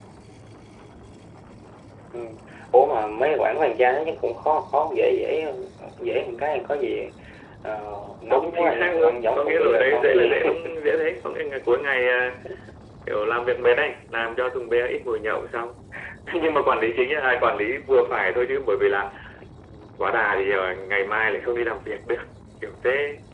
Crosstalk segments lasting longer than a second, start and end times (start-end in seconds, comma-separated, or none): 8.2-10.5